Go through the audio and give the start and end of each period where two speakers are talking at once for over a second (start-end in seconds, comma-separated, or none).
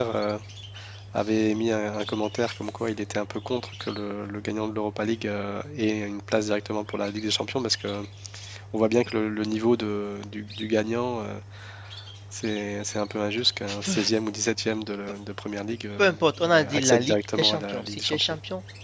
16.4-18.4